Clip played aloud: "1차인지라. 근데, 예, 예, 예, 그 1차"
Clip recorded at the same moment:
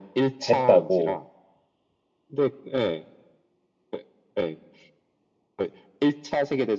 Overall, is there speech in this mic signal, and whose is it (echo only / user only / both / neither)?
both